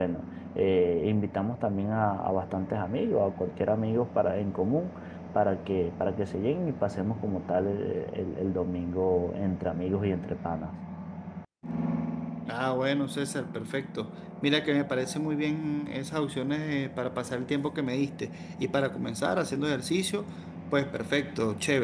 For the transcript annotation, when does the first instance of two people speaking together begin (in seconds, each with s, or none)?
none